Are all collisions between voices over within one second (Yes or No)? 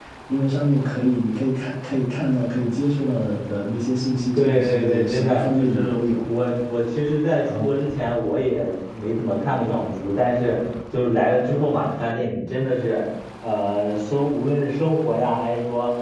No